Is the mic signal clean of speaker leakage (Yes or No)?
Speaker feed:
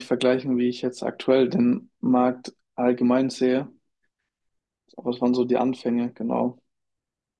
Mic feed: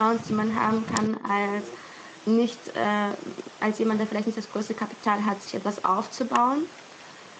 Yes